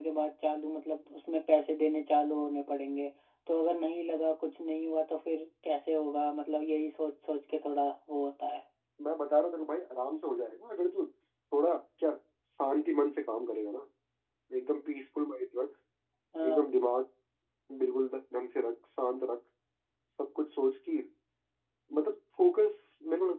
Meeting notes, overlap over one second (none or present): none